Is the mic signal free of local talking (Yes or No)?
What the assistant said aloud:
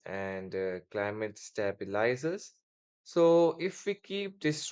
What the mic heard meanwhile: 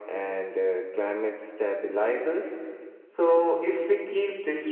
Yes